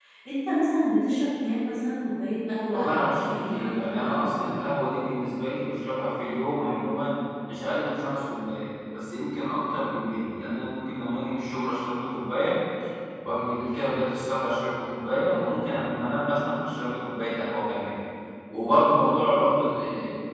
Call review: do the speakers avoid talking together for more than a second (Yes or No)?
No